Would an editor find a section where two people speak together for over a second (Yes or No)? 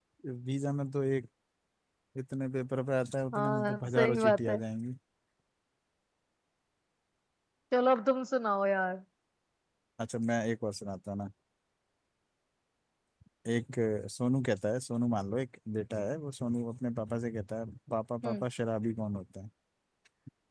Yes